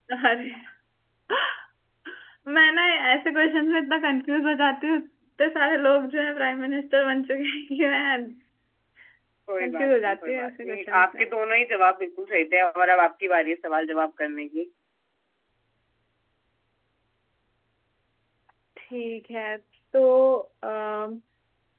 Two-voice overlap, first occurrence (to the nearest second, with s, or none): 10 s